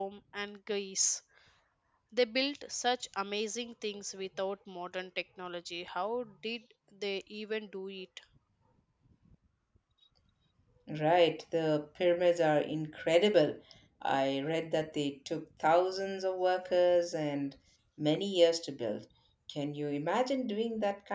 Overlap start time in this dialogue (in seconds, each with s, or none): none